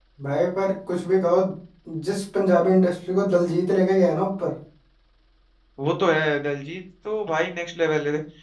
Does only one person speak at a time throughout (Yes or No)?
Yes